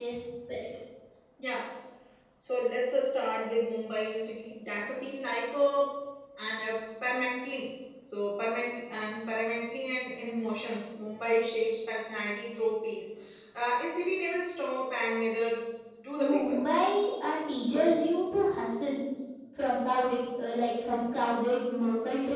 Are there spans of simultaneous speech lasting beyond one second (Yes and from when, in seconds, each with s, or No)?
No